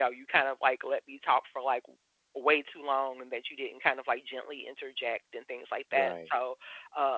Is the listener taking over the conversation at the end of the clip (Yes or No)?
No